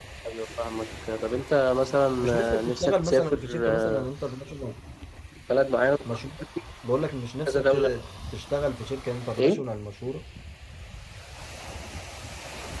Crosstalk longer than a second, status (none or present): present